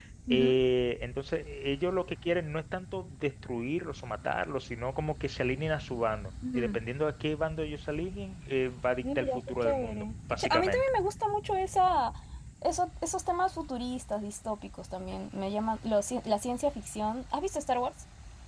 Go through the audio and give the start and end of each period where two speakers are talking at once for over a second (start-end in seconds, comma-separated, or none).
9.0-10.9